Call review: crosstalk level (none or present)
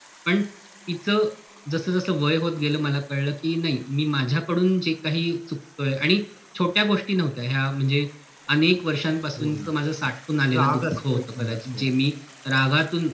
present